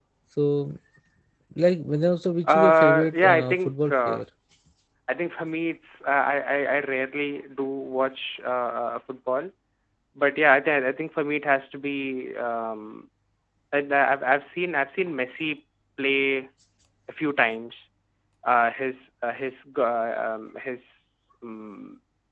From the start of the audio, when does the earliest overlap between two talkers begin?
2 s

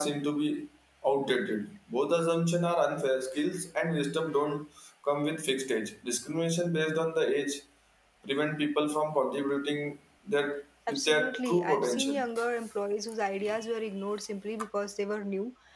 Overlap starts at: 11 s

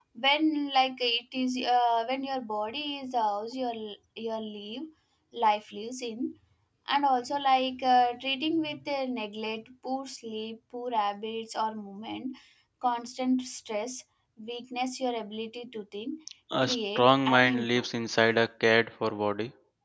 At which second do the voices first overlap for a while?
17 s

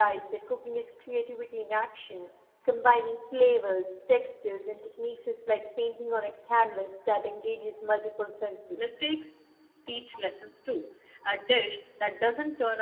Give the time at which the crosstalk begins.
none

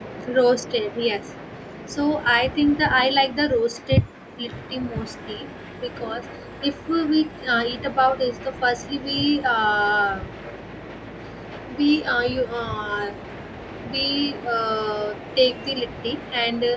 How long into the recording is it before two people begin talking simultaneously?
none

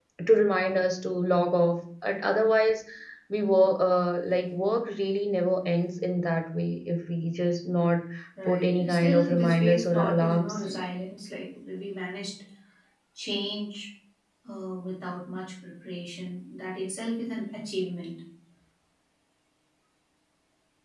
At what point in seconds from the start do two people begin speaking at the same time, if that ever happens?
8 s

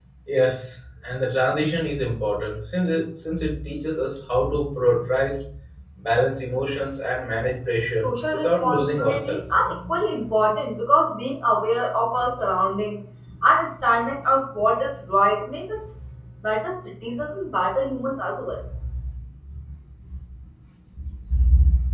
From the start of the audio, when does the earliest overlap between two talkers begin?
8 s

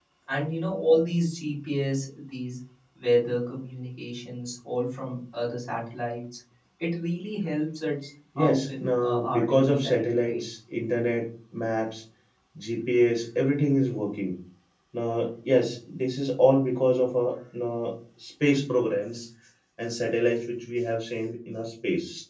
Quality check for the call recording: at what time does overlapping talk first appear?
8 s

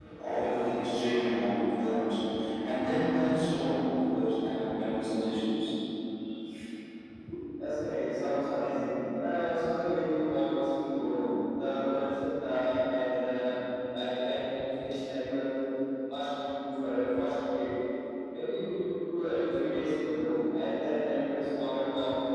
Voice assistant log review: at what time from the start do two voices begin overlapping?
none

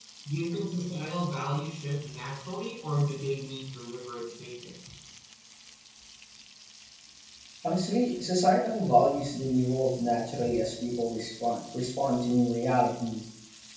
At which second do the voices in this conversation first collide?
none

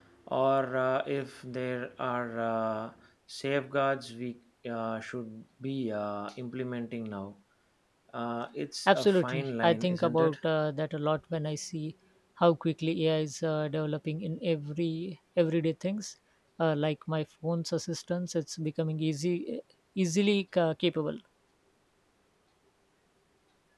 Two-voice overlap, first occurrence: 9 s

